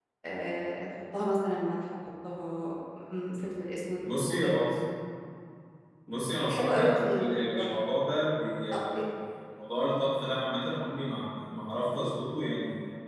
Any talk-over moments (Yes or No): Yes